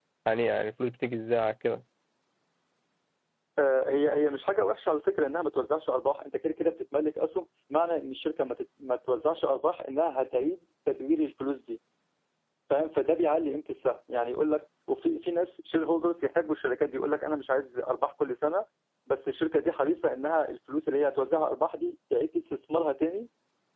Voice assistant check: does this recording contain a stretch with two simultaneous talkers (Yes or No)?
No